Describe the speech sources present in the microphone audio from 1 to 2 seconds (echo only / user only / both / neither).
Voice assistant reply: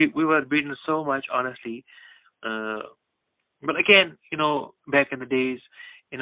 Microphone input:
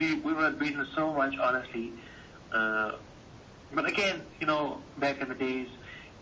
echo only